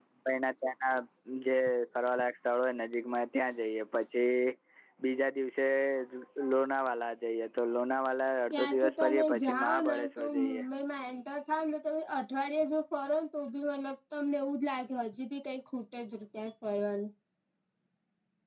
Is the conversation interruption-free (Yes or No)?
No